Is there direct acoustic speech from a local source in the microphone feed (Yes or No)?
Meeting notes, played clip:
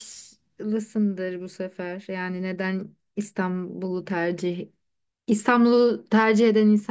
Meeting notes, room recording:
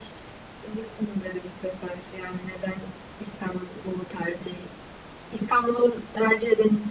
No